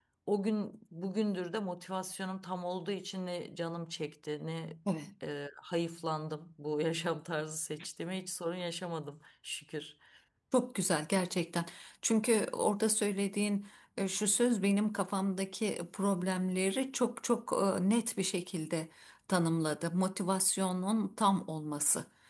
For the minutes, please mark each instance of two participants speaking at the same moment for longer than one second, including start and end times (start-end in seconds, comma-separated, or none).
none